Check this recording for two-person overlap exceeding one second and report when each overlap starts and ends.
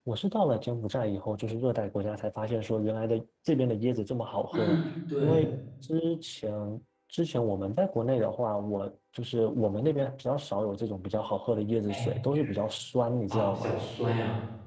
none

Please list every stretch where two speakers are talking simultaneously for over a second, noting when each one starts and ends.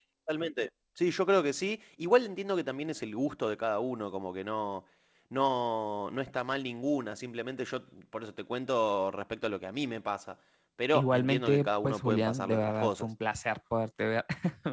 10.9-13.1

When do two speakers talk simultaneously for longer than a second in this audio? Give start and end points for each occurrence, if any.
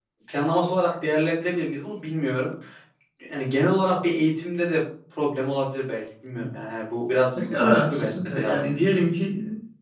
7.4-8.8

